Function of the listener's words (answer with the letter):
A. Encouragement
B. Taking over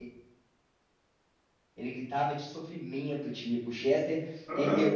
A